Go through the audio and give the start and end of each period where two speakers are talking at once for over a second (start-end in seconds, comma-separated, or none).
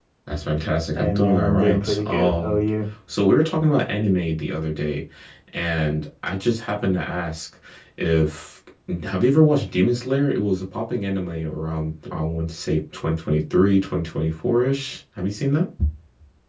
0.9-2.6